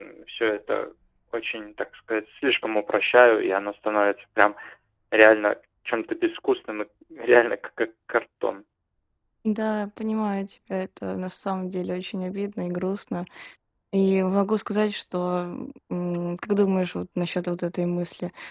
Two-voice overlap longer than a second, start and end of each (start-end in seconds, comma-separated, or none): none